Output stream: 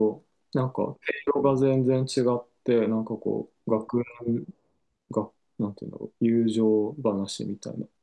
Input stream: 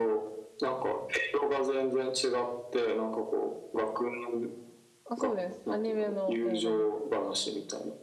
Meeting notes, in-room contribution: present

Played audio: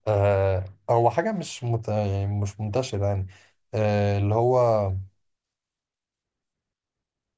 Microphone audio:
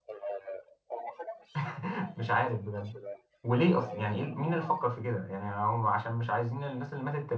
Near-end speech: present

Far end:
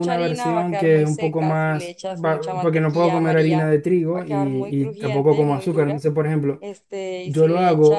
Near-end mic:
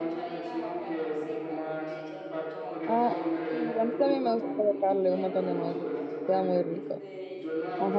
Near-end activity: present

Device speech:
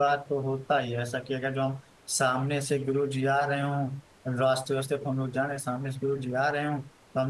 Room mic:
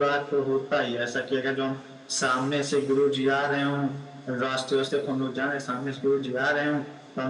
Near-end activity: none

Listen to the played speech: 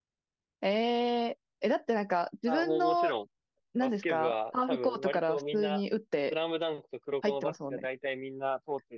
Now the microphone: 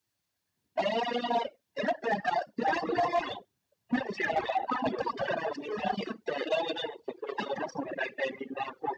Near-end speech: none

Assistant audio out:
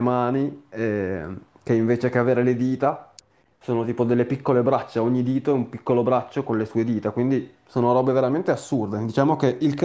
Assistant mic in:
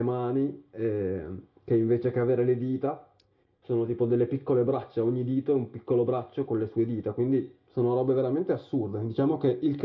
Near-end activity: none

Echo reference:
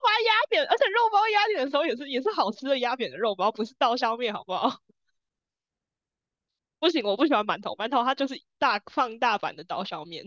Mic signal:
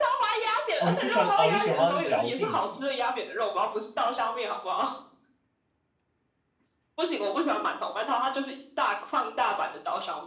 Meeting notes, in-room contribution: present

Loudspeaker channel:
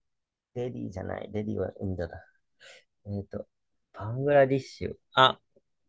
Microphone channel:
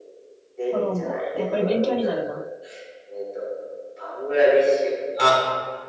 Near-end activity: present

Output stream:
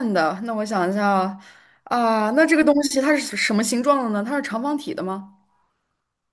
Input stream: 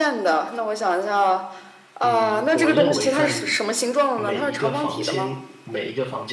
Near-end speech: present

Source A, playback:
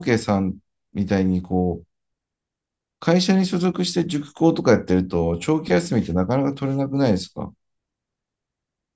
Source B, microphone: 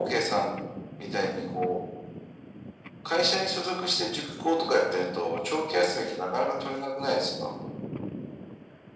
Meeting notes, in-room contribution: none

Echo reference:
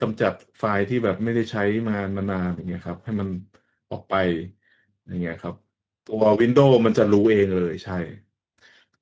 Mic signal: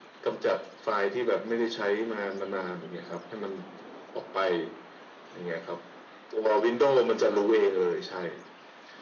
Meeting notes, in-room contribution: none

